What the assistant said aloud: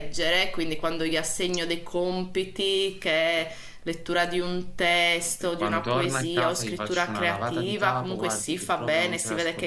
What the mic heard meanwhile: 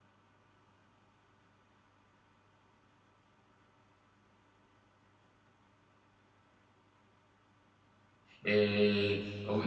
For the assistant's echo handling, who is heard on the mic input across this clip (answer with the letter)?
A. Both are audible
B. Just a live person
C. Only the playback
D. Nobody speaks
B